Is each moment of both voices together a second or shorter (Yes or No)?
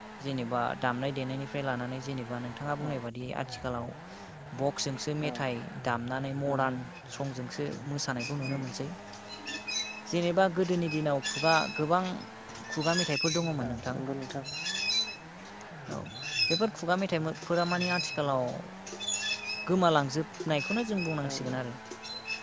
Yes